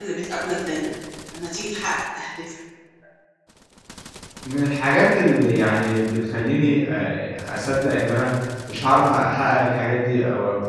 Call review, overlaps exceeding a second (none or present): none